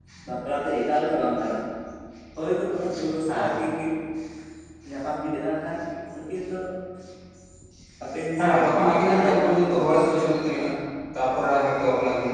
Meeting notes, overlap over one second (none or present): present